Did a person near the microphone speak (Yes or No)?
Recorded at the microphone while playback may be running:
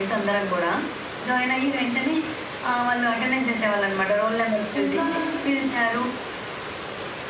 Yes